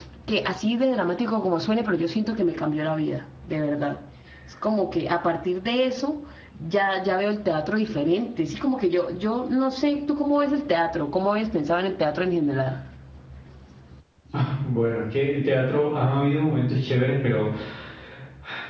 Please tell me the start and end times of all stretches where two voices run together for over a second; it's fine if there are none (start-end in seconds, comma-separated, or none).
none